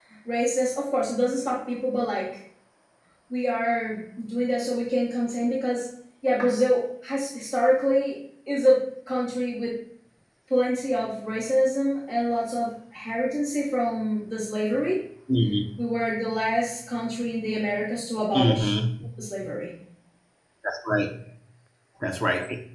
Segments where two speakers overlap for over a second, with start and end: none

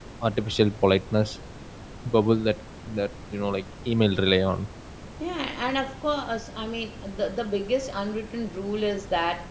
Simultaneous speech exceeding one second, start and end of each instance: none

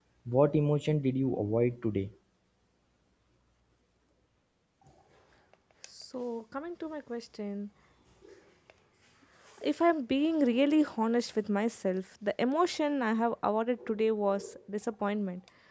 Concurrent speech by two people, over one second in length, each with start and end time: none

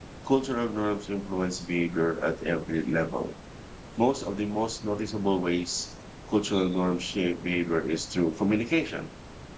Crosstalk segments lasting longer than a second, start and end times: none

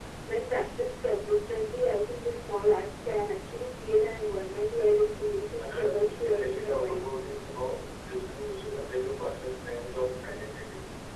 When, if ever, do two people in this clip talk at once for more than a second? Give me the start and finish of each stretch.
5.6-7.0

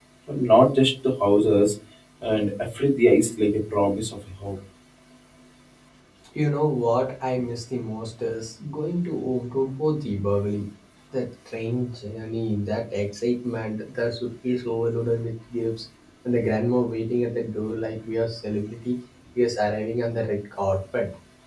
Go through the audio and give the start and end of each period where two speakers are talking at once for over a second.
none

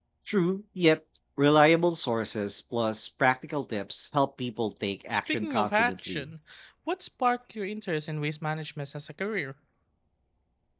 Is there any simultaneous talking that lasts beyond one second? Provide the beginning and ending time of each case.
5.1-6.3

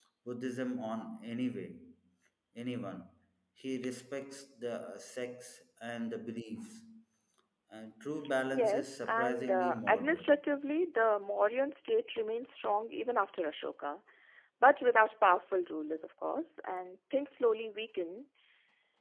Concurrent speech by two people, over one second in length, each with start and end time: 8.5-10.4

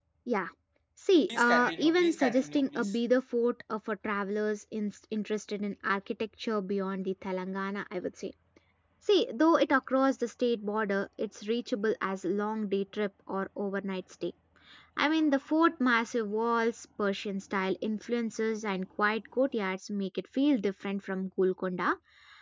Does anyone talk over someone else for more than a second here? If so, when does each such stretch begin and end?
1.3-2.9

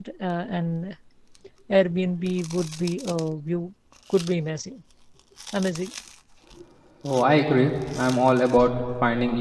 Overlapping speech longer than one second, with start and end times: none

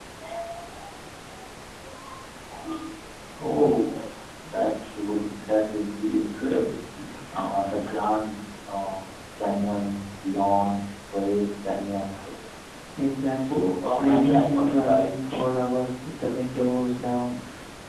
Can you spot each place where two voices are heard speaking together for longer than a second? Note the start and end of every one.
13.3-15.2

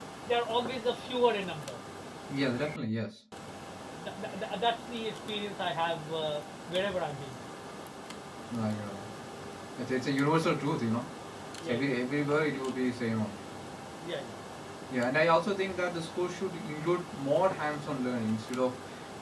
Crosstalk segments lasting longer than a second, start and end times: none

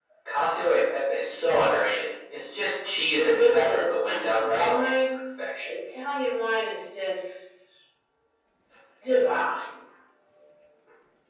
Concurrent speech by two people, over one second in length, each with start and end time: 3.2-5.0

